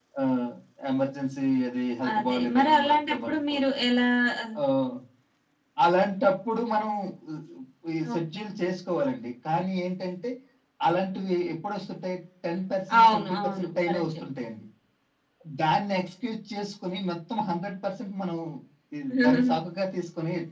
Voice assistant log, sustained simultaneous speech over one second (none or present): present